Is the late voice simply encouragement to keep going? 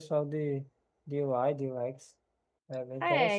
No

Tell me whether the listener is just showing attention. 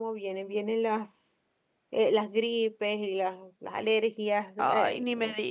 No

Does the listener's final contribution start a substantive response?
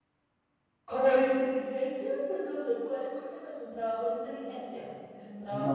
Yes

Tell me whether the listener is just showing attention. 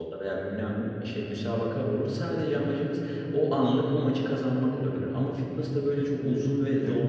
No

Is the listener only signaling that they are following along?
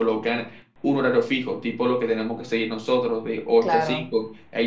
Yes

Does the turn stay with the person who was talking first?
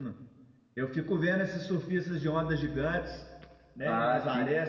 No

